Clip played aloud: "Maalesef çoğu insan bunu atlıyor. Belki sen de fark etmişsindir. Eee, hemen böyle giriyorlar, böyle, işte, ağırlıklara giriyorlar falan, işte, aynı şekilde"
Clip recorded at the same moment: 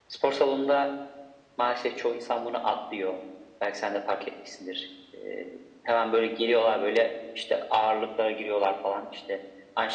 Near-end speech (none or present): none